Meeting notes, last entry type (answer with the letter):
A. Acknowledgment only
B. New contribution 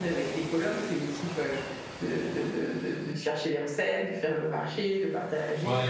B